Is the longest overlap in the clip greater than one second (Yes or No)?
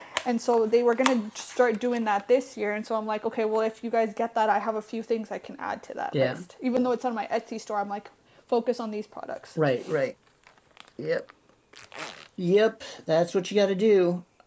No